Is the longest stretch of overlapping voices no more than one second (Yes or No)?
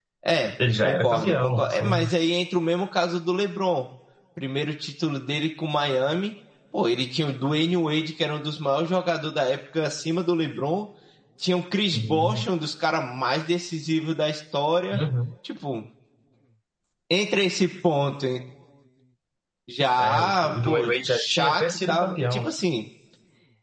No